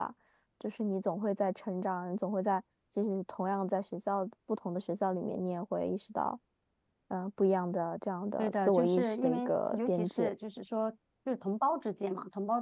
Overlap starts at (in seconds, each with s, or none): 8.4 s